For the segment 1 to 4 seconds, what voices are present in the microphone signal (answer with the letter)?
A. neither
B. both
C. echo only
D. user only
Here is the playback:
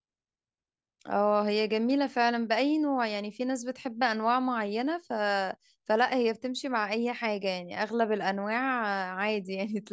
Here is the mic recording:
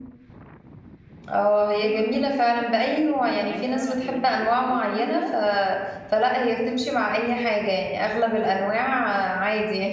B